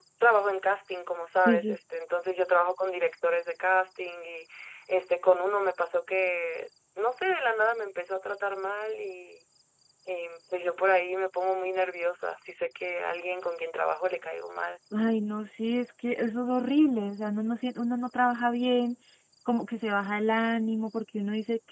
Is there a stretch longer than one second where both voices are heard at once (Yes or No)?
No